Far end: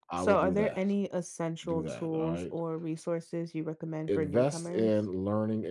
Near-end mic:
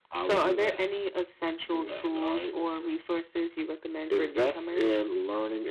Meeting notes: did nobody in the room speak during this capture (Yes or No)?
Yes